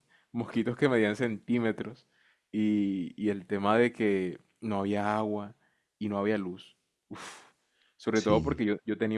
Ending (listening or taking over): listening